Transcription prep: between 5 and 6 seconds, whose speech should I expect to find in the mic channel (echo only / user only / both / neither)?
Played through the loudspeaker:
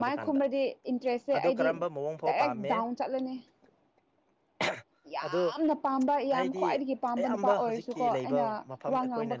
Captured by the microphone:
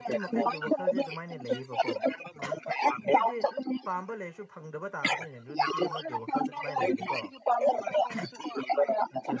both